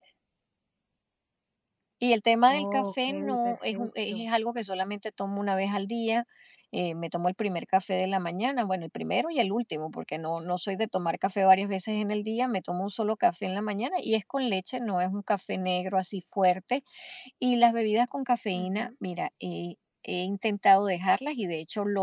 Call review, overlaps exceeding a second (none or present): present